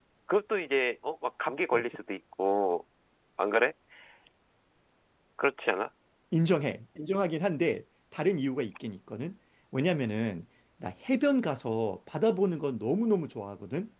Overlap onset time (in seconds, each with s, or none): none